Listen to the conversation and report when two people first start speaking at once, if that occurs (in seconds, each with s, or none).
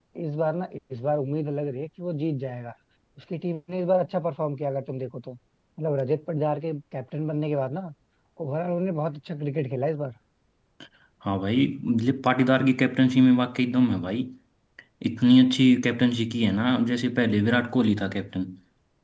none